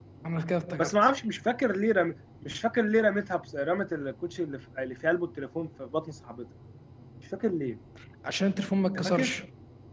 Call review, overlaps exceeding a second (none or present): none